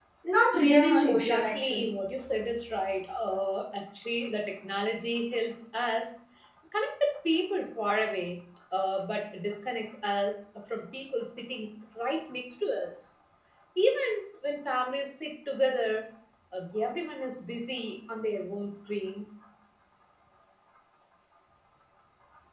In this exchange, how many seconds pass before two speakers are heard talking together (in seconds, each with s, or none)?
0.6 s